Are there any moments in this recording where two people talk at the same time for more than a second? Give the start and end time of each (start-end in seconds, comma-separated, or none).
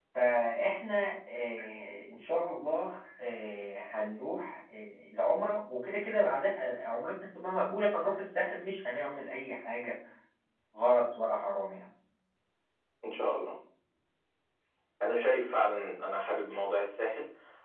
none